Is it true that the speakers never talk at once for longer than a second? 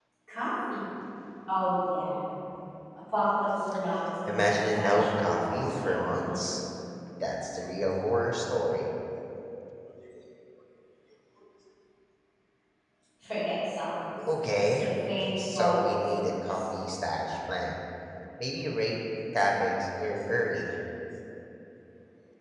No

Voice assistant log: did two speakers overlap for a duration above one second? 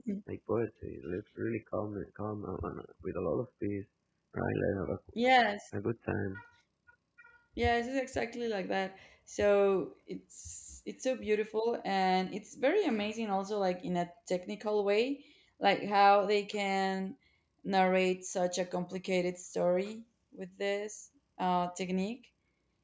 No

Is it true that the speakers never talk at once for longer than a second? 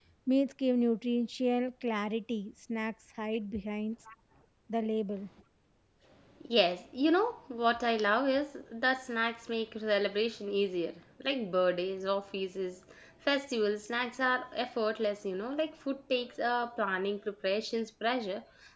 Yes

